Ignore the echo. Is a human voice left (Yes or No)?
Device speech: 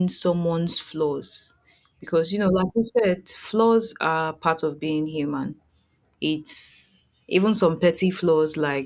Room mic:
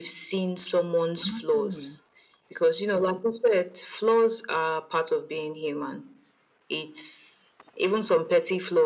Yes